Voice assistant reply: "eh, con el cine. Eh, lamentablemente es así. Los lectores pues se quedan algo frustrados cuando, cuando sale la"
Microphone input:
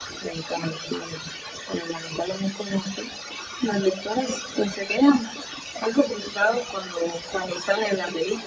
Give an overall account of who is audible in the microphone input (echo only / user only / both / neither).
echo only